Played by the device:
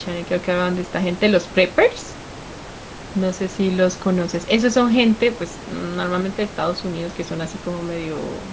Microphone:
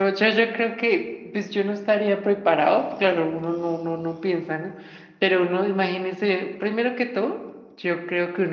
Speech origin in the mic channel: user only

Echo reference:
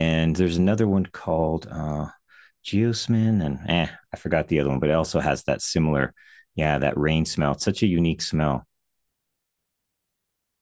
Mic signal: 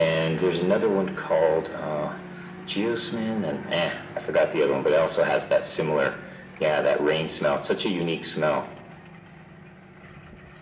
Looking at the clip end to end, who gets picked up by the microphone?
echo only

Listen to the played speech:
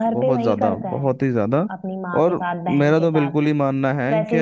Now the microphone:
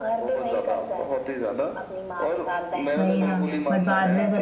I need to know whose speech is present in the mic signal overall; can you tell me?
both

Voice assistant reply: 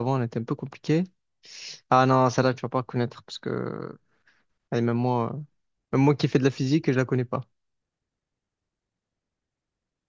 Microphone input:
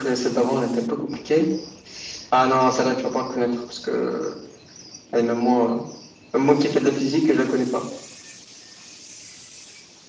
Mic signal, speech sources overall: echo only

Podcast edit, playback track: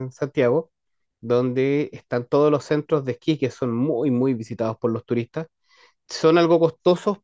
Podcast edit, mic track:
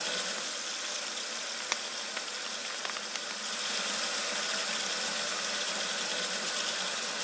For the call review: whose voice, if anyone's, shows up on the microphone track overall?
neither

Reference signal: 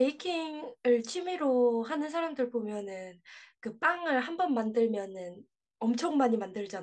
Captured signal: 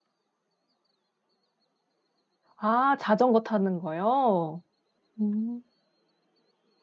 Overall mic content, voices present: user only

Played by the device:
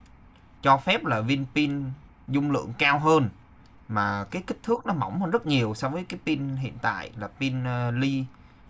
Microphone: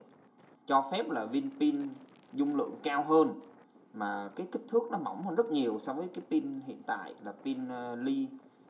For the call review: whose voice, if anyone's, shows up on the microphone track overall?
echo only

